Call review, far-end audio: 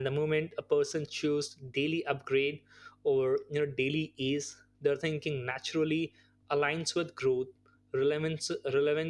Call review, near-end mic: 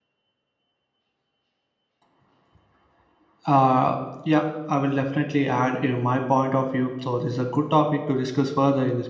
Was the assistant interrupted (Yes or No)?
Yes